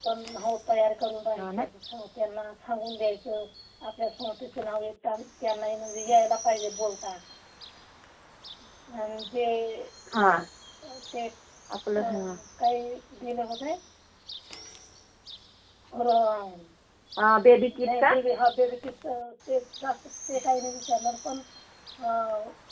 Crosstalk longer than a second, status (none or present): none